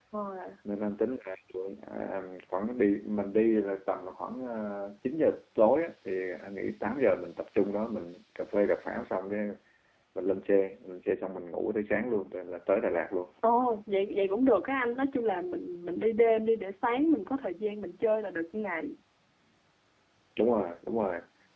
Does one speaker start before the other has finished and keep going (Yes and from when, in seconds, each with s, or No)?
No